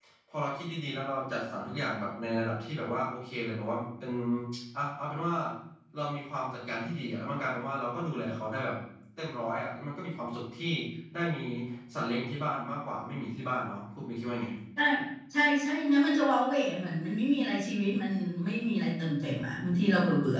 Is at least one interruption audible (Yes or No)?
No